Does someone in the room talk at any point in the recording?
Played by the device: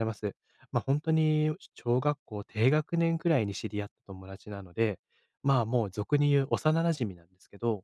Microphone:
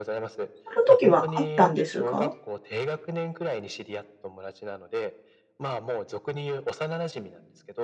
Yes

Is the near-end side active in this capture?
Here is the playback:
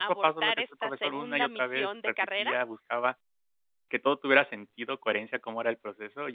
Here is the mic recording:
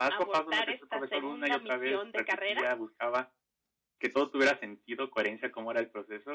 No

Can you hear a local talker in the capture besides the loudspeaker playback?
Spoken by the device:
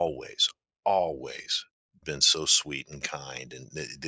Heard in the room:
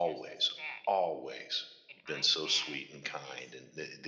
Yes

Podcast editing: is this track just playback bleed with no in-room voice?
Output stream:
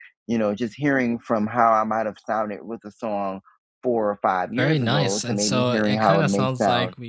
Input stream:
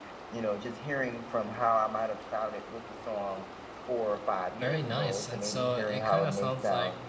Yes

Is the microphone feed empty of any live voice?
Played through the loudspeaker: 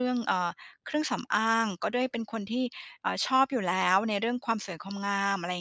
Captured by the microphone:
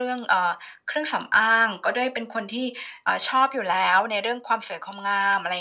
Yes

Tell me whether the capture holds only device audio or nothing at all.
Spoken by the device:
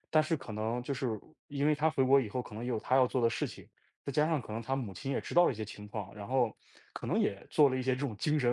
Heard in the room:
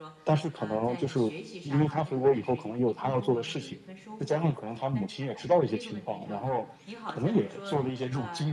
No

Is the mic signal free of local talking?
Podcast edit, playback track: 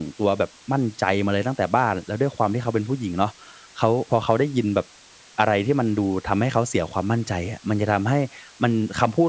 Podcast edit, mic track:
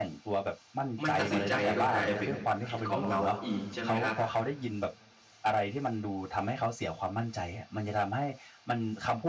No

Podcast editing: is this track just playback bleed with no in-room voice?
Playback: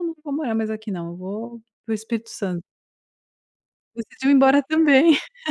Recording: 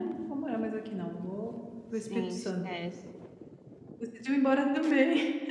No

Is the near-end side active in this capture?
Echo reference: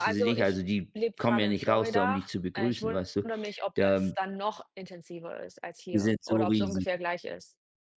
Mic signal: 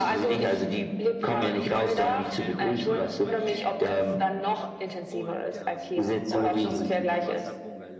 Yes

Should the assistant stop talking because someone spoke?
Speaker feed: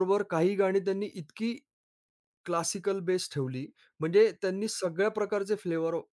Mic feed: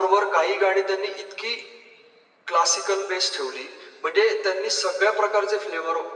No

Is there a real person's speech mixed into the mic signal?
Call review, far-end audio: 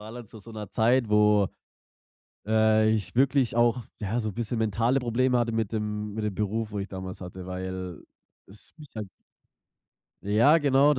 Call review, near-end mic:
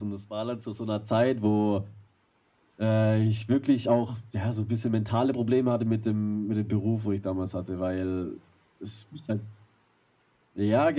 No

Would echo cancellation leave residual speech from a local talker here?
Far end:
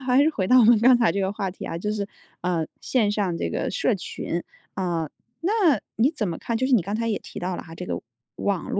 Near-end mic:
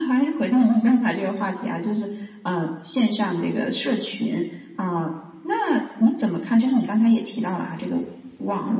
No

